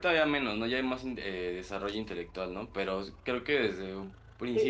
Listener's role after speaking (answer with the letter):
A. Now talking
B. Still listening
A